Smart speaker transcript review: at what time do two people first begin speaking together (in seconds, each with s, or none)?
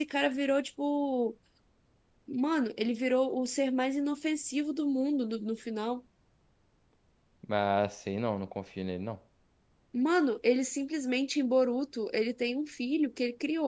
none